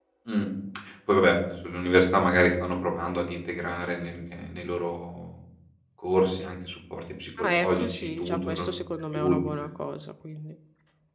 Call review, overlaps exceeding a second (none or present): present